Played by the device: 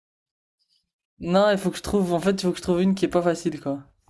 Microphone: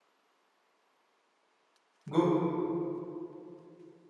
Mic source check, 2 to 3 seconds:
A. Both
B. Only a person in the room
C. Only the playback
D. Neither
B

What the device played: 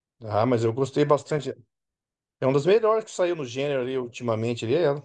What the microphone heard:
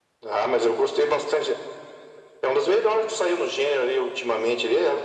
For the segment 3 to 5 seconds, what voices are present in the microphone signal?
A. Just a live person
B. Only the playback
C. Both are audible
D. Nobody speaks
B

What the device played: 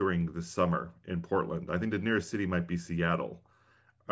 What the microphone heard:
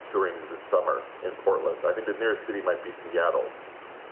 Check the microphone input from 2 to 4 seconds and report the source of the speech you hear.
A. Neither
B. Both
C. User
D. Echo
D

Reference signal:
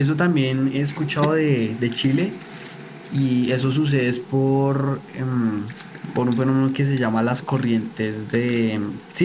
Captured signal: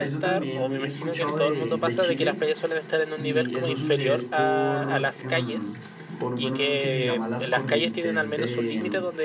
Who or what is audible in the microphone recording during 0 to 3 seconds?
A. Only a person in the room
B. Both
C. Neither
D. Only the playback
B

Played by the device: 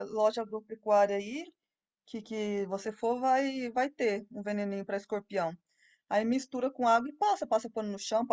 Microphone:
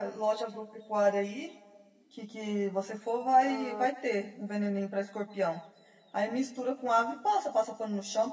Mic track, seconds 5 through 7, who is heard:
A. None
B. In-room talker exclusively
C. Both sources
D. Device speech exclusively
D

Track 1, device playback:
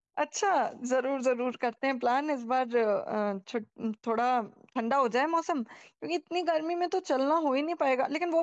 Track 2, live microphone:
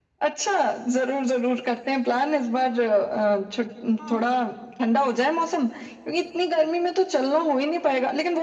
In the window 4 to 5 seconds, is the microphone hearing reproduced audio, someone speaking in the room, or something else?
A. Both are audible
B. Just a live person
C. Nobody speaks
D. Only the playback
A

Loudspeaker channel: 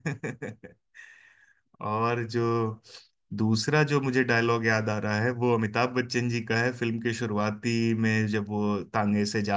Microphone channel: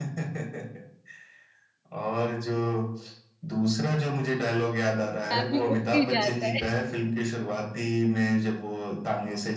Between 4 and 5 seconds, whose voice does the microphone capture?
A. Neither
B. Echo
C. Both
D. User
B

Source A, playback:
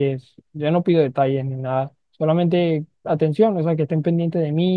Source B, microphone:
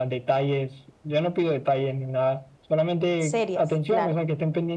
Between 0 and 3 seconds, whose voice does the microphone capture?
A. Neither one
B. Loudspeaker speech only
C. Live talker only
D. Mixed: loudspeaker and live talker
B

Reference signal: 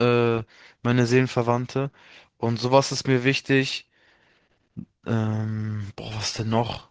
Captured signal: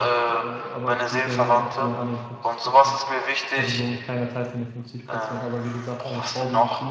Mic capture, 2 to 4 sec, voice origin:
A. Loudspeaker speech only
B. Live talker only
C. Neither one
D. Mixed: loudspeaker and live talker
D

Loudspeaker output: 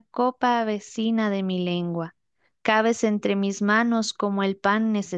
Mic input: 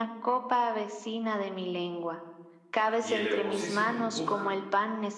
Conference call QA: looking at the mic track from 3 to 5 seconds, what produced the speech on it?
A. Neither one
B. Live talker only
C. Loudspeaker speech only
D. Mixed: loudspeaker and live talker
D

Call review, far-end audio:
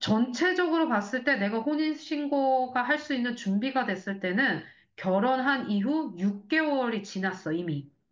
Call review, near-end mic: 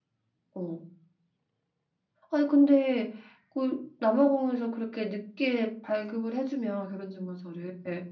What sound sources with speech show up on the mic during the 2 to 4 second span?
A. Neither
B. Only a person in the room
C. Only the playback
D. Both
B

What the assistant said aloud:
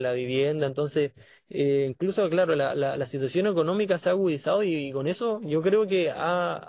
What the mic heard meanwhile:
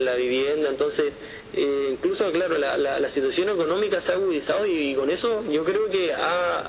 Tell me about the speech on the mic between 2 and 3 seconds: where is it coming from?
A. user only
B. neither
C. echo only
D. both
C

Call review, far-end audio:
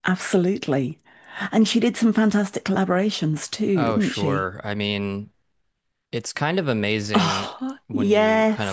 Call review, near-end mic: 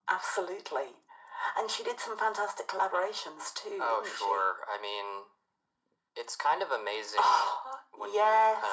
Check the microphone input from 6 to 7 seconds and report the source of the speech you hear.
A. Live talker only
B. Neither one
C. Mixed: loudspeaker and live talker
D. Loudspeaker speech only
D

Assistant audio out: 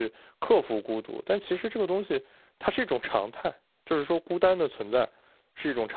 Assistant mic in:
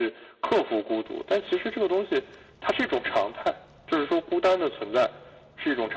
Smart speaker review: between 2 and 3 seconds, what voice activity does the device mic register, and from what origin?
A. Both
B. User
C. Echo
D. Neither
C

